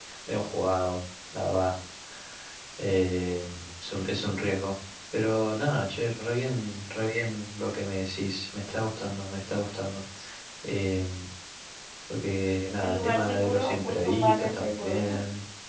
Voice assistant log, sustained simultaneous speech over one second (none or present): present